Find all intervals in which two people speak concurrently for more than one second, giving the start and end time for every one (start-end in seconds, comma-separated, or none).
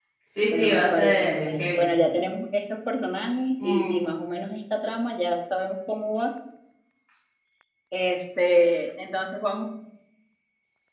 0.5-1.8